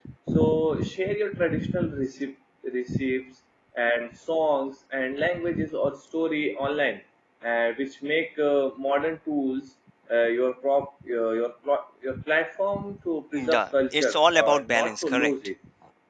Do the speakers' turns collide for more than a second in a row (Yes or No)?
Yes